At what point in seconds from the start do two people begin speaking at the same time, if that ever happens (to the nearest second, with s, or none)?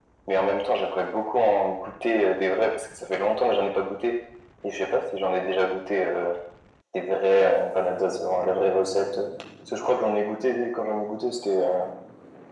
none